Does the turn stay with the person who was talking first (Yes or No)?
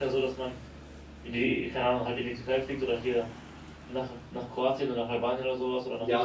No